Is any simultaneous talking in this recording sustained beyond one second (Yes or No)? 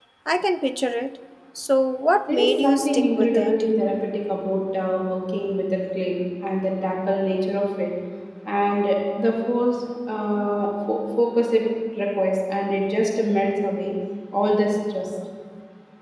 Yes